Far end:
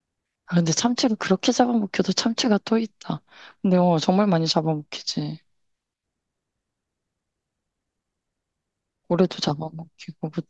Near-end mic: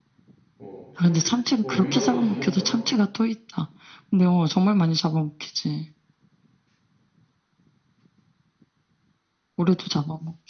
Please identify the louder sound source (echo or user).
echo